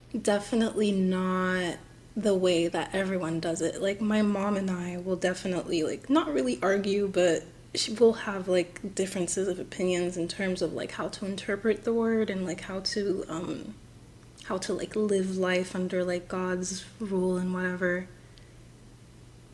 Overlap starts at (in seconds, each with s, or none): none